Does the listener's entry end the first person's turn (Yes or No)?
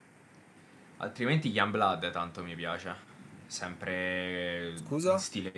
No